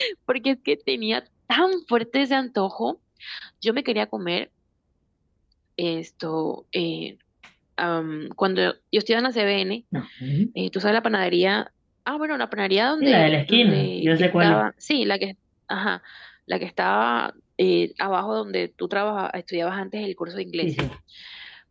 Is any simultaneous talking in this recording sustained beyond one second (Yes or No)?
Yes